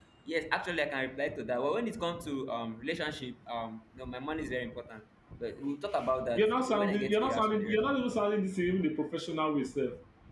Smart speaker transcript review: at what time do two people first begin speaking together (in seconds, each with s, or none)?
6.4 s